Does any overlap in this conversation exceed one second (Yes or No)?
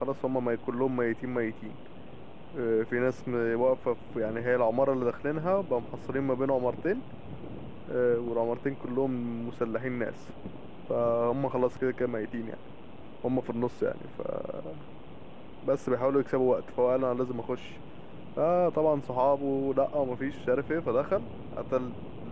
No